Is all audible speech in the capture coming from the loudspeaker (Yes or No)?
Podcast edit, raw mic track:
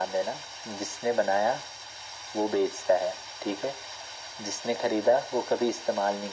Yes